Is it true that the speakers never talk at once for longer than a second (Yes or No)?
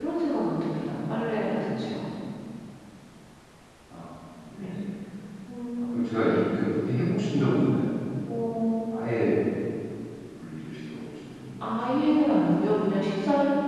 Yes